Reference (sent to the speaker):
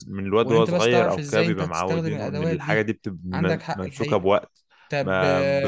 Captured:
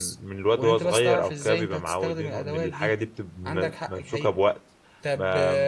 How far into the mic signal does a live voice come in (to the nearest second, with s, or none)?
none